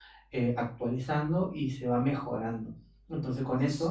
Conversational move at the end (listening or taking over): listening